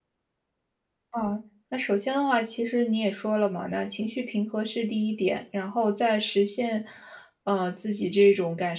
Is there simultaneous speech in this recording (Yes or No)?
No